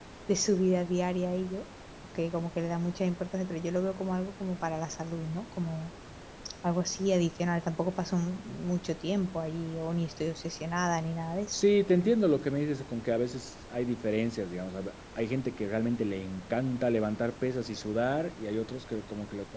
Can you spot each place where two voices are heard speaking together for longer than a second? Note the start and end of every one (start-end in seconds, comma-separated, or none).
none